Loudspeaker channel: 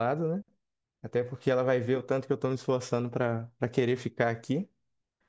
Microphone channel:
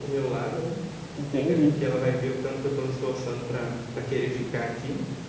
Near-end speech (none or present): present